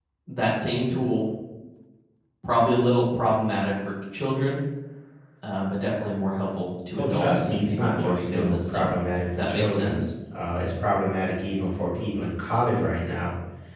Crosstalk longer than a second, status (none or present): present